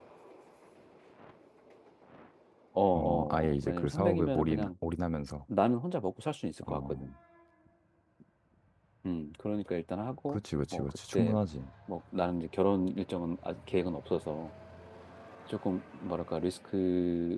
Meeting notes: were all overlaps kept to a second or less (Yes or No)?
No